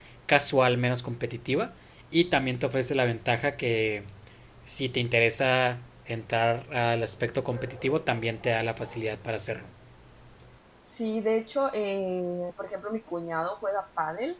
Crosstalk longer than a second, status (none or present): none